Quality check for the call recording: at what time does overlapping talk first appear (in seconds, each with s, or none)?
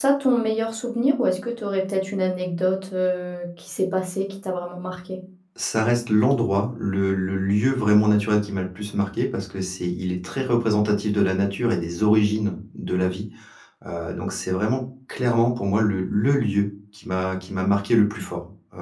none